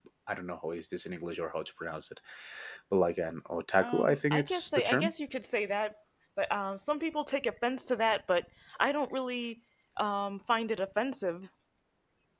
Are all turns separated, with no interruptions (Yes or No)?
No